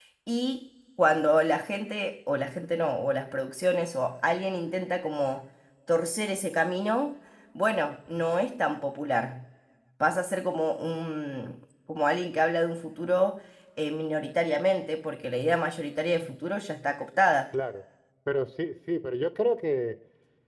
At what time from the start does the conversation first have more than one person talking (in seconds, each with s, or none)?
none